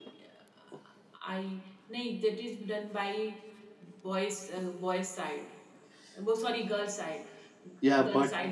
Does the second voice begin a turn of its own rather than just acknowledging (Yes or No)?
No